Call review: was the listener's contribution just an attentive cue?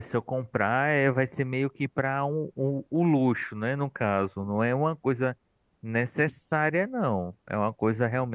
Yes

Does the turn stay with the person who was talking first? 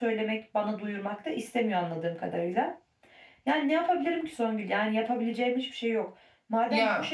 Yes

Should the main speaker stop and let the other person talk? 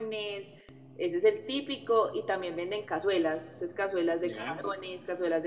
No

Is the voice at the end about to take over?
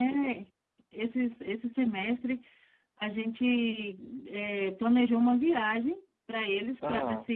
No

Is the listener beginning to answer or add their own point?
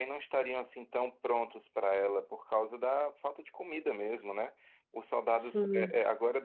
No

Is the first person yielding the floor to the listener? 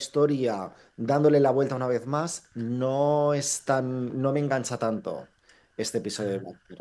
No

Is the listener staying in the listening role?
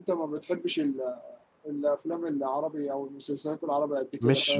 No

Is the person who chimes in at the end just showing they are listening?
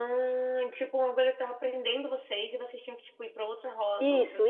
No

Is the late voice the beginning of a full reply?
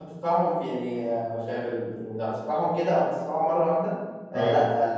No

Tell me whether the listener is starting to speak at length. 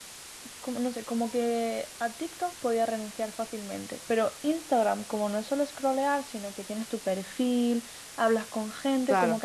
No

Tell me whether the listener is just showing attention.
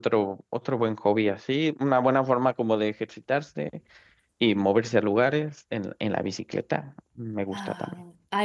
No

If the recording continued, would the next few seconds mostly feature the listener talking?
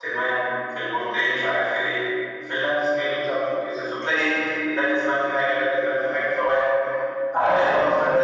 Yes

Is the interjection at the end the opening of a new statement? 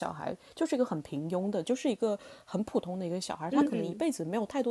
No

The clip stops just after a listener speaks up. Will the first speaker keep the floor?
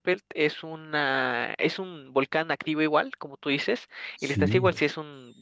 Yes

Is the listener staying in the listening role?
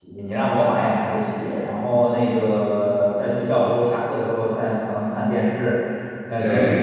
Yes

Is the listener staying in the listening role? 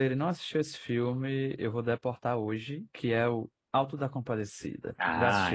No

